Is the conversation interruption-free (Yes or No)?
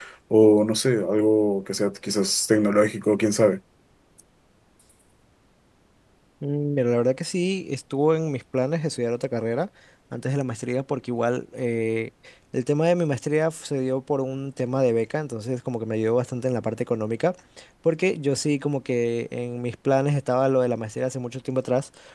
Yes